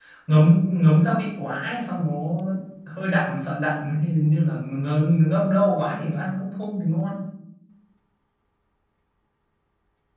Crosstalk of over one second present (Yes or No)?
No